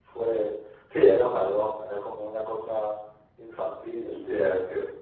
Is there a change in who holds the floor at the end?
Yes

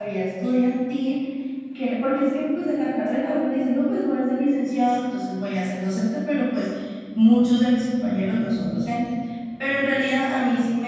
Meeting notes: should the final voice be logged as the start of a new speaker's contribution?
No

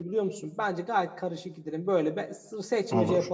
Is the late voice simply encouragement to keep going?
Yes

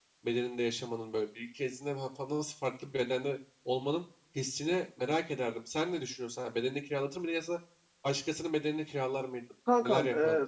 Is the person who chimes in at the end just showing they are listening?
No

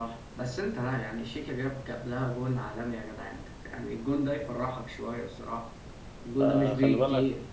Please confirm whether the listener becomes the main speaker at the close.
Yes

